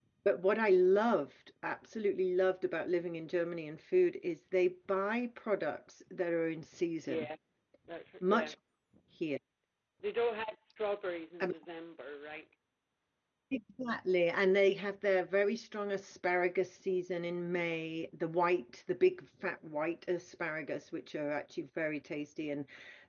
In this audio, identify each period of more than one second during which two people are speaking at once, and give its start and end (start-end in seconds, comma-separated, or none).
none